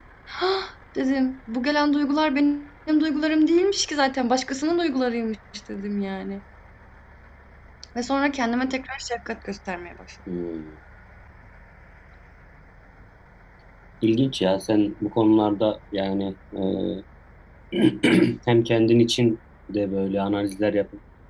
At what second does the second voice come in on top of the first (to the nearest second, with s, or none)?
none